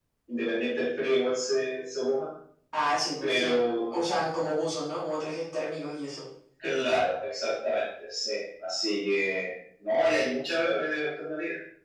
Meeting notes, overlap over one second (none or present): none